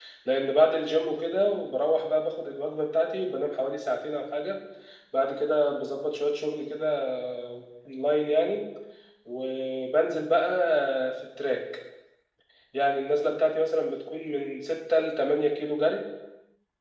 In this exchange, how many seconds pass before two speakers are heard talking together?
none

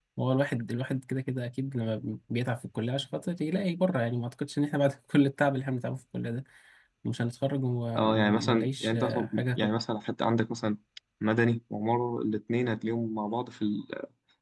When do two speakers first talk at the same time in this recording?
8.0 s

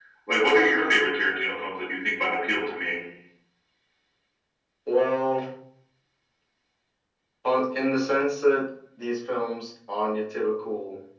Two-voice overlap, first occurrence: none

